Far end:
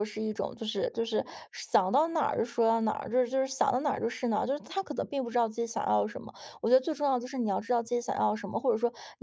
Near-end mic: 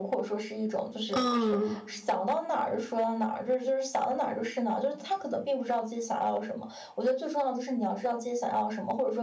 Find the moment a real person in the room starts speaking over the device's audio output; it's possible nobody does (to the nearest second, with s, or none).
1 s